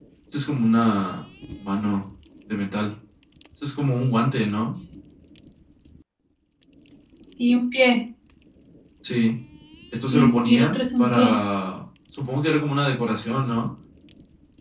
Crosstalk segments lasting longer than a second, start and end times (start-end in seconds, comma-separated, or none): 10.1-11.3